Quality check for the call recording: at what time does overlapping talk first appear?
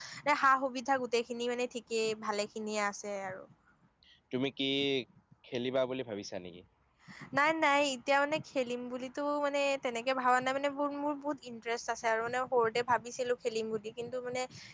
none

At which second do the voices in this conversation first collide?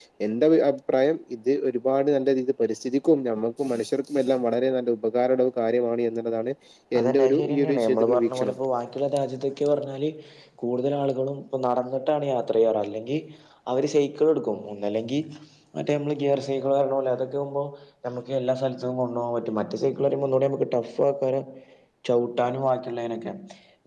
7 s

